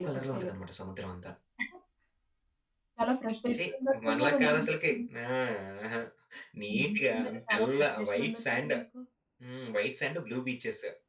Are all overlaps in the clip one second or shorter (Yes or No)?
No